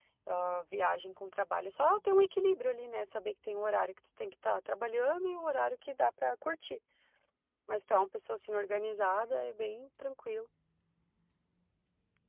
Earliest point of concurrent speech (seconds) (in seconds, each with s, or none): none